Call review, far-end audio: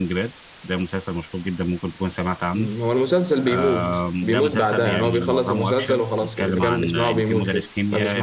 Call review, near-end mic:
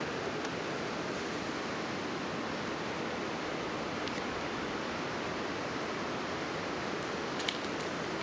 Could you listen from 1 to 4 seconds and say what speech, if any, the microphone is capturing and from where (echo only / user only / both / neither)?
neither